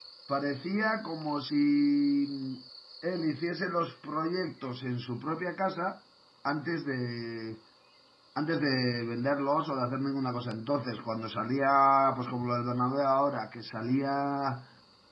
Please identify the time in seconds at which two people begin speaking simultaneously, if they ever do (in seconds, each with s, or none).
none